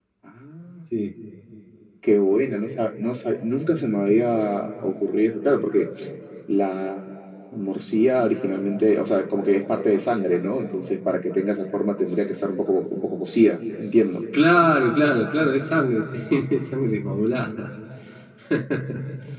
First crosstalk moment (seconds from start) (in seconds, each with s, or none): none